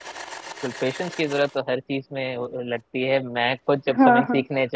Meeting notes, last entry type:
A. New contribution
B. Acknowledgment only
B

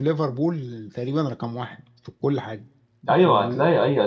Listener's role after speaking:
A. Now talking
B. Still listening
A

